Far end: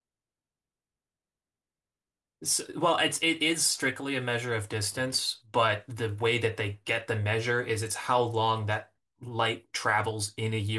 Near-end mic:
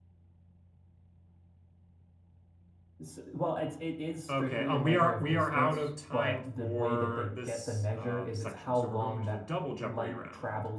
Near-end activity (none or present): present